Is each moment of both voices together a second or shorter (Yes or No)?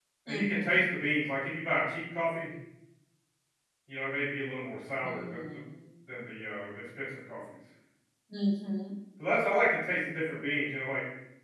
Yes